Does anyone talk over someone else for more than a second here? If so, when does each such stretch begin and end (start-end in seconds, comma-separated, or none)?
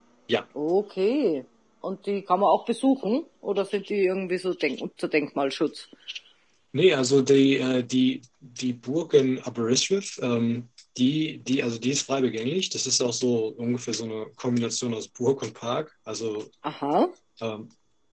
none